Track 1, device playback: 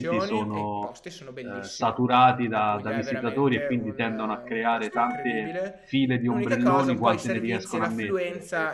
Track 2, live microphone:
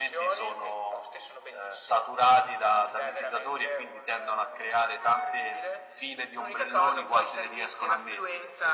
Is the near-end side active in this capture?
No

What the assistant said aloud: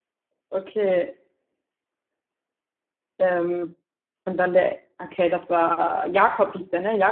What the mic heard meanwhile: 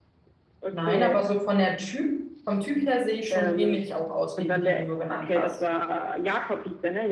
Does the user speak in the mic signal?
Yes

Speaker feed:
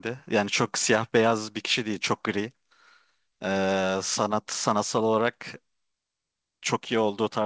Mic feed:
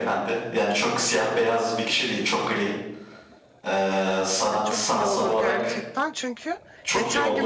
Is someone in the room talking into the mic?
Yes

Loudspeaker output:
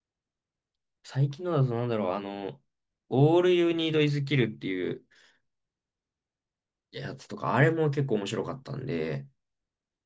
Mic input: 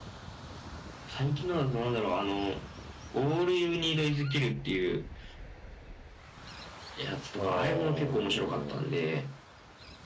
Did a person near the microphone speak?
Yes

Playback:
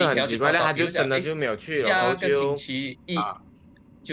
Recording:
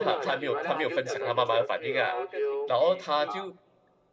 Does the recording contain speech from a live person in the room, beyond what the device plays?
Yes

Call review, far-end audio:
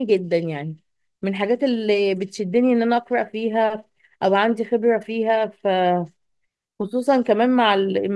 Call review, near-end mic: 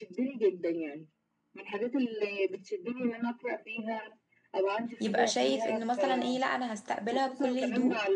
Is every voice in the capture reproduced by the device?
No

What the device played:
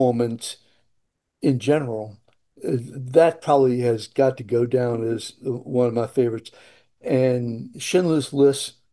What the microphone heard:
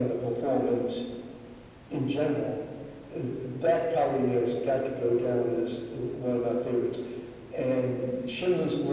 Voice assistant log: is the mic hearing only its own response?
Yes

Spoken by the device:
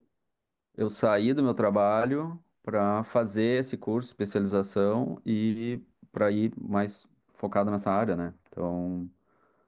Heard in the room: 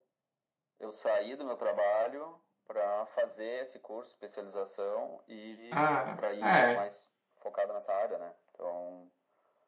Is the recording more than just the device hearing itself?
Yes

